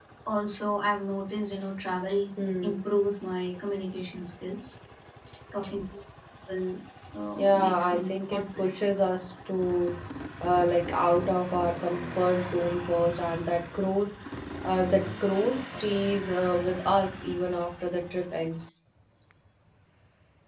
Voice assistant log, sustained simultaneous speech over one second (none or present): present